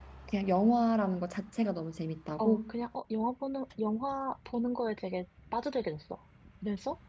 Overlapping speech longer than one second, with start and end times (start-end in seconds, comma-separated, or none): none